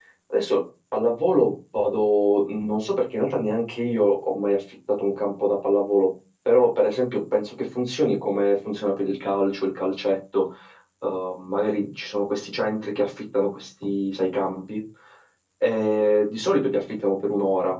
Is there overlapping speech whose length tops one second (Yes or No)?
No